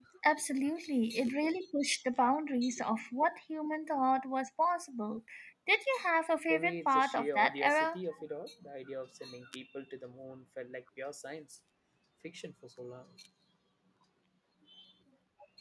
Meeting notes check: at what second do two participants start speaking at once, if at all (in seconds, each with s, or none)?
6.5 s